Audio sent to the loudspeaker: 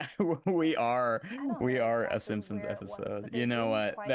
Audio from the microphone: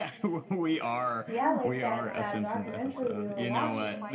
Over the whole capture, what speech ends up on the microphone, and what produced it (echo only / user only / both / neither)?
both